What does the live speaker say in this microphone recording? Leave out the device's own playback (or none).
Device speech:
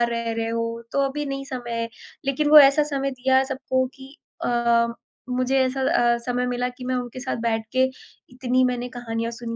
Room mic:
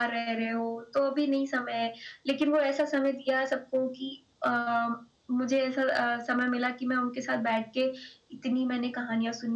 none